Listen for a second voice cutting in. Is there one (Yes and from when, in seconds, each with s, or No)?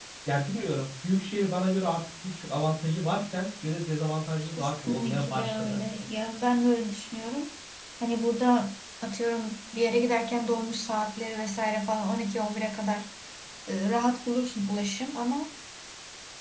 Yes, from 4.5 s